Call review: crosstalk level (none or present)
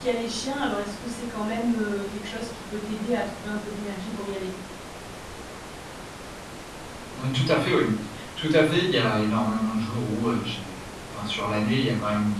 none